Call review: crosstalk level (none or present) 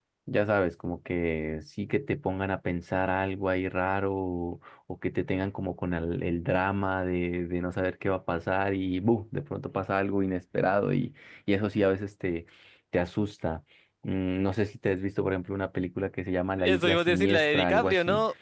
present